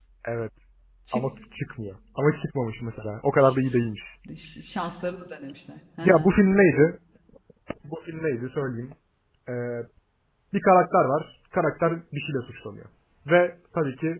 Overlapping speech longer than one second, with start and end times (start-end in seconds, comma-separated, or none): none